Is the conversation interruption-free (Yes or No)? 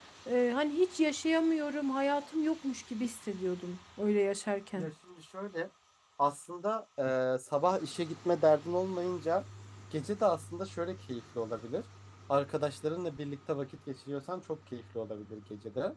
Yes